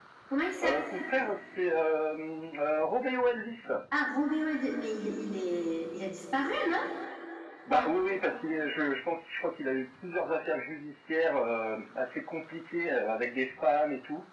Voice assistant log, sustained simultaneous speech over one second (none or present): none